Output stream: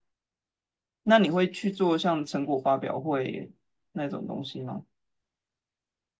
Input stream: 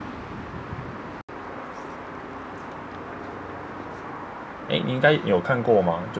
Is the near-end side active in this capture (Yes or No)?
Yes